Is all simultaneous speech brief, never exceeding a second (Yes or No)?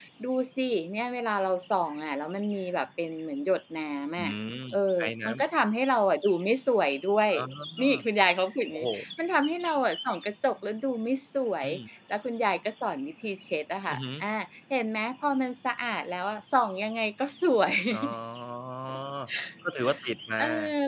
Yes